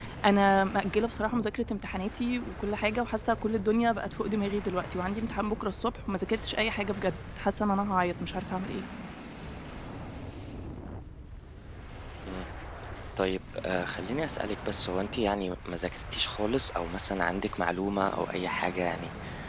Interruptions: none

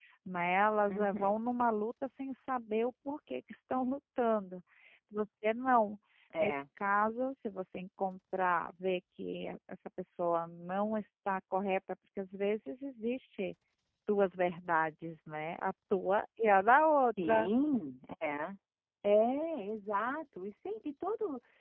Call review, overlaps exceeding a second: none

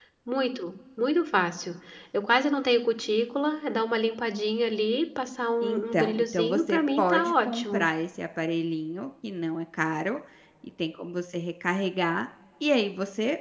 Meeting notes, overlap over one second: present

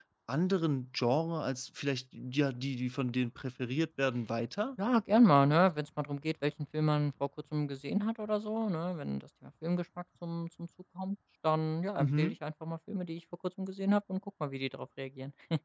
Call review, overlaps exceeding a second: none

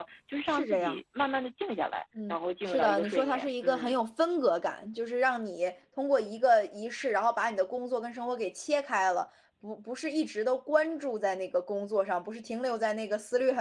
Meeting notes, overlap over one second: present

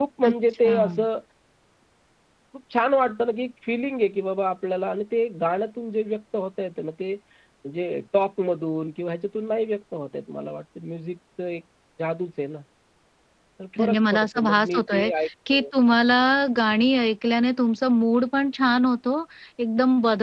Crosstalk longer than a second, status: present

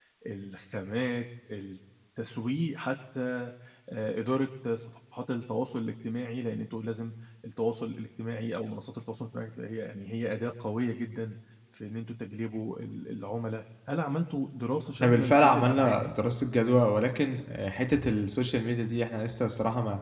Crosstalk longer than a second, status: present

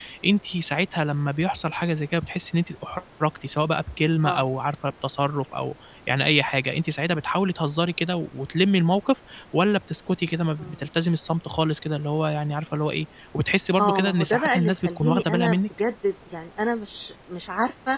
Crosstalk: present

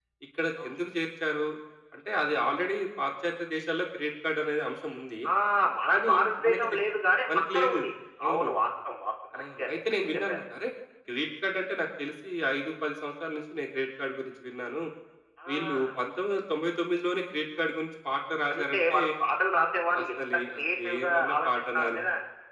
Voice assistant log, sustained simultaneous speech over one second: present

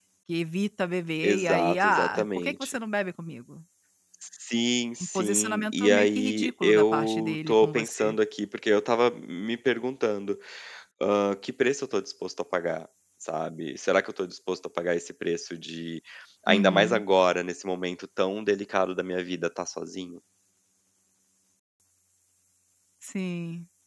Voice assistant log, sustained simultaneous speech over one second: present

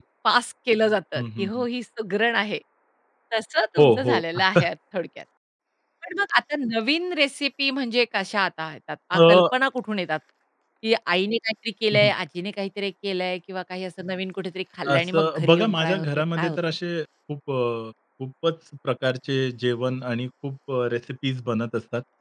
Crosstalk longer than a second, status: present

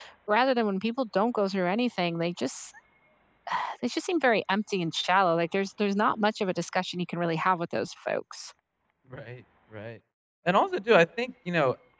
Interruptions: none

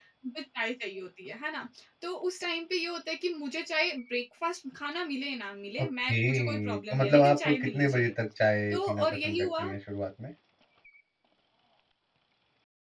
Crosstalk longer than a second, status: present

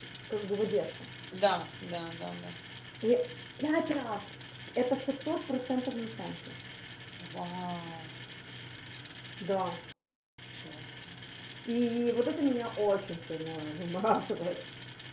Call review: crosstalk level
none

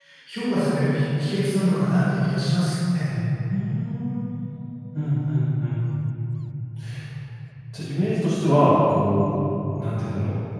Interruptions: none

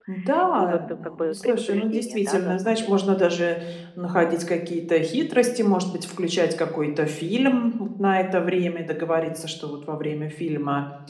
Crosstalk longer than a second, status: present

